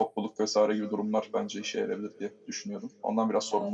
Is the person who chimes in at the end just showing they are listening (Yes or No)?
No